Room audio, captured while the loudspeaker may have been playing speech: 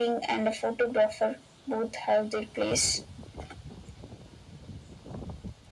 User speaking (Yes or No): No